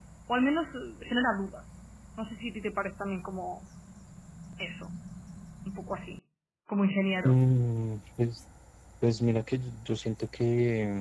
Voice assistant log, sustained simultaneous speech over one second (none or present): none